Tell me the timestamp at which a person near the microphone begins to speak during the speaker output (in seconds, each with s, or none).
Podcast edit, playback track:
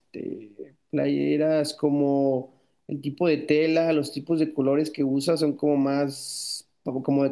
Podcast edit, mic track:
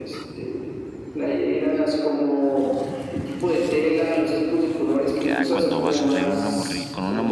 5.0 s